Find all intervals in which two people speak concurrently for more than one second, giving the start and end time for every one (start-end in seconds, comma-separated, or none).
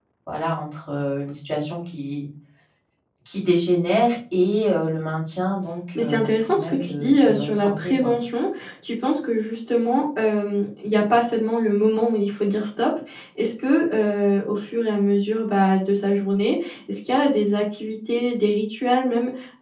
5.9-8.1